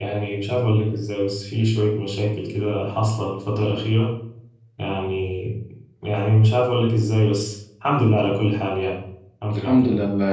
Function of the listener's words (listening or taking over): taking over